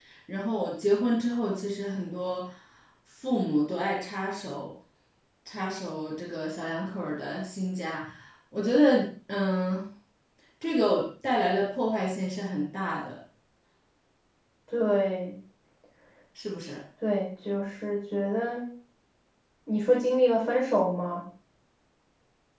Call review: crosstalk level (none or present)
none